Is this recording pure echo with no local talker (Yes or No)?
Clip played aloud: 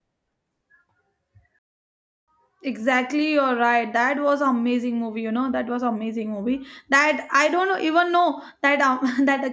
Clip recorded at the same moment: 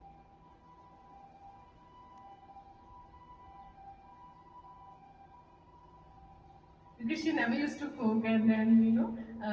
No